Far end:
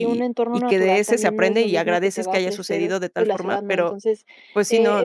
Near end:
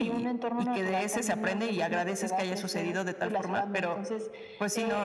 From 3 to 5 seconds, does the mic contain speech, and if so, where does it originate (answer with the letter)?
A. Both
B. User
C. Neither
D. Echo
D